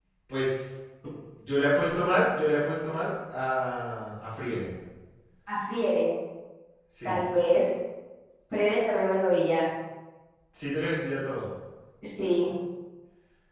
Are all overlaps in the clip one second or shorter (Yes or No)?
Yes